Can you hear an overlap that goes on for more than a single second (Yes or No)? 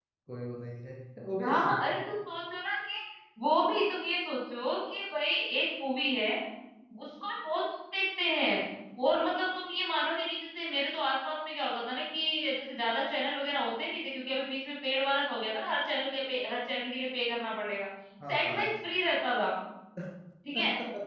No